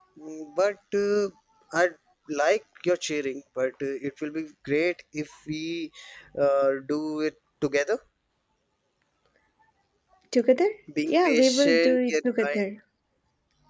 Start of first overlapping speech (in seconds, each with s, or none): 11.1 s